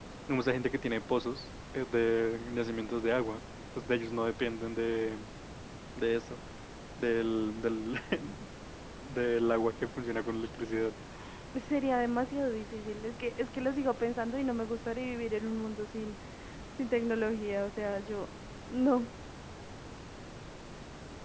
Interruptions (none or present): none